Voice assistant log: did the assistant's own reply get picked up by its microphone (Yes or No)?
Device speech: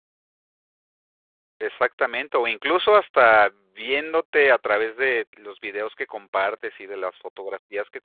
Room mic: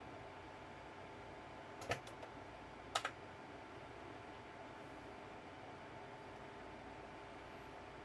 No